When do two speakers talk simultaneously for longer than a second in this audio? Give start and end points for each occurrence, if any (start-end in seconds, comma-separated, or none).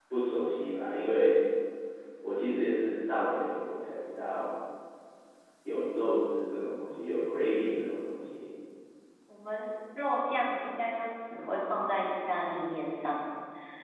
none